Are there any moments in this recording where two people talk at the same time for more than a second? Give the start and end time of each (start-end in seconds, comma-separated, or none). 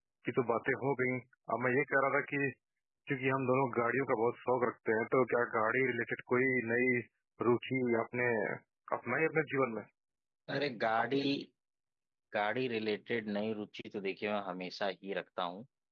none